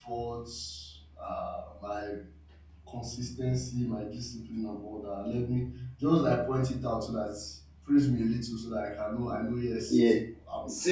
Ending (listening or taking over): taking over